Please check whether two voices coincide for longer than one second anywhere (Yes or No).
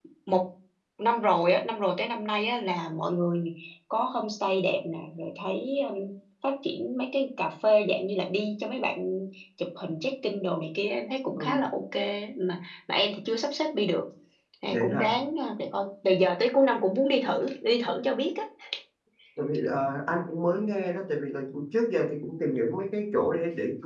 No